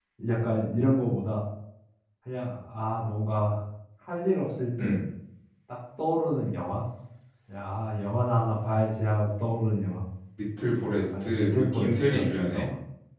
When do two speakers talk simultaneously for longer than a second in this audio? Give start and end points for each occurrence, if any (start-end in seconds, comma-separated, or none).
10.8-12.7